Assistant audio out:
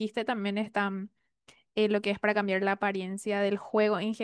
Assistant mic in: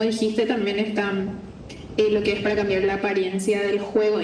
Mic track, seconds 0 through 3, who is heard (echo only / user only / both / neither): echo only